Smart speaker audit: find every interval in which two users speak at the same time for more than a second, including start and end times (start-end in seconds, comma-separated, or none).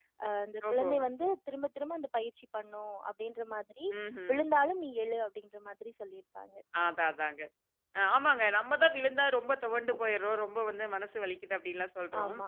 none